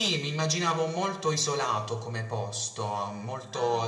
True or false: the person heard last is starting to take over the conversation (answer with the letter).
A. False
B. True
A